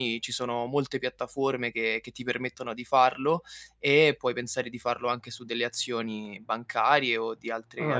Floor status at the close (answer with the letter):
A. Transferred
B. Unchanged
A